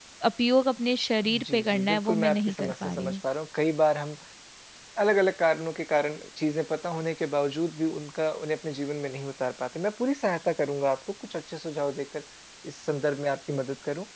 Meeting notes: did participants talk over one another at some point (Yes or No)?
Yes